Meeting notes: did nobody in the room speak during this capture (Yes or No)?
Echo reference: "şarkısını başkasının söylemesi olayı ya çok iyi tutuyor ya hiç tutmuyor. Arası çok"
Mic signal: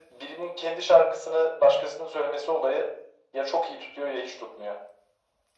Yes